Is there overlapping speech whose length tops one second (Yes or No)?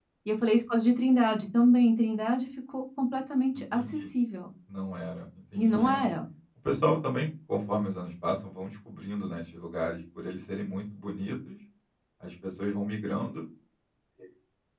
No